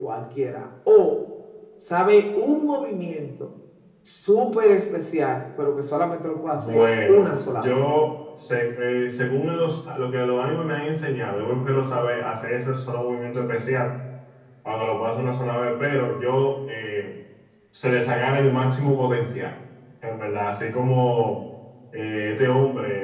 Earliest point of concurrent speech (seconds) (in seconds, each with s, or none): 6.5 s